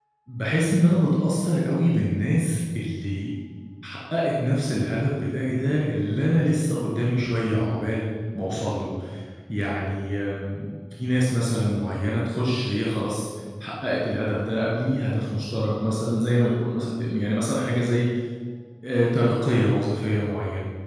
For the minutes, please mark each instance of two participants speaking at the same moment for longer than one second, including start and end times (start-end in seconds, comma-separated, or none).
none